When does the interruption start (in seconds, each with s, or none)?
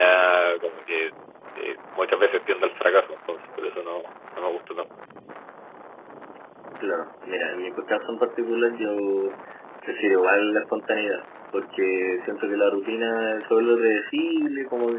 none